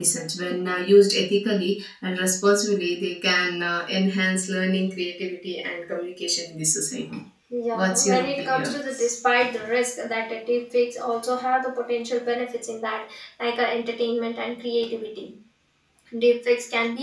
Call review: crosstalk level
present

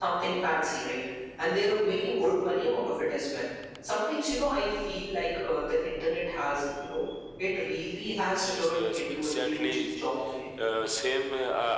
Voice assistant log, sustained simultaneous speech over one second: present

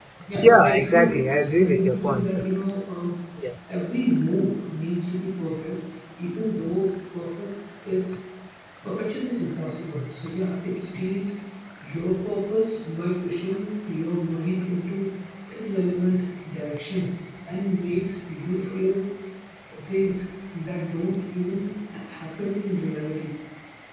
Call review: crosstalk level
present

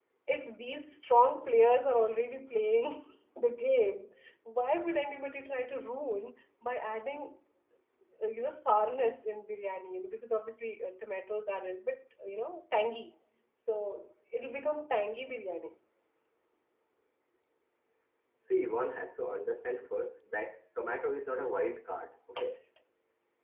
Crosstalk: none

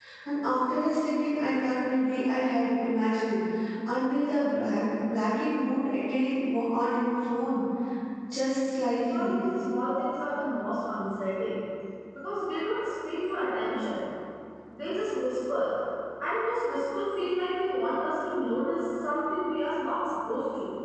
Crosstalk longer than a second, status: none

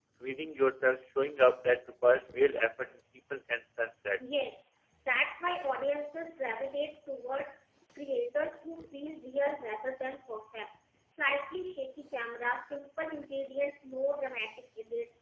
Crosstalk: none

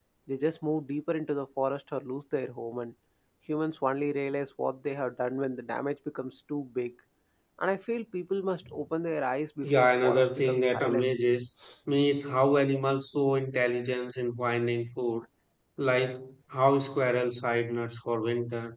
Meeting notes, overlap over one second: present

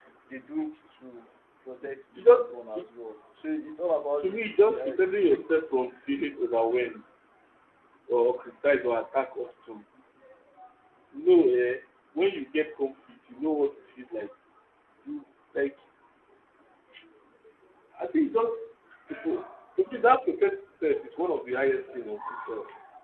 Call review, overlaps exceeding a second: present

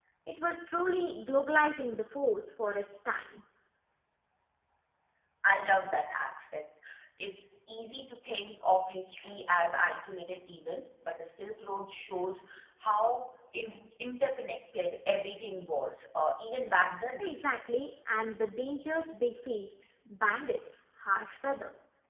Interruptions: none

